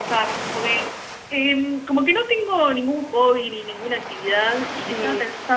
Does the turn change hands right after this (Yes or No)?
No